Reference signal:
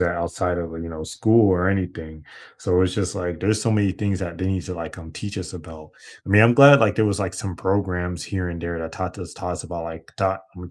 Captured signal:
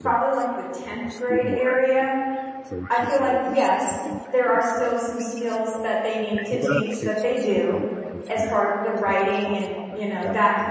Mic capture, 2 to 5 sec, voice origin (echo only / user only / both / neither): both